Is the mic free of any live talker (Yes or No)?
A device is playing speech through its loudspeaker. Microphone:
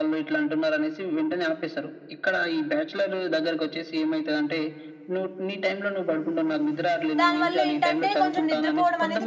No